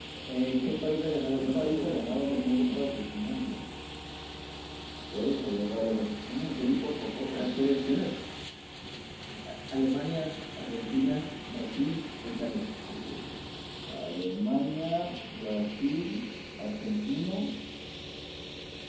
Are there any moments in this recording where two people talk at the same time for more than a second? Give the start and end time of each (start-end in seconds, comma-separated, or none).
1.4-2.8